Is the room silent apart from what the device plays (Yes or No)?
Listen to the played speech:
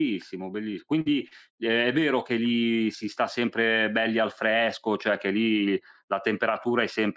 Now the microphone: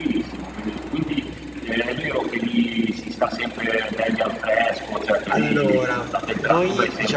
No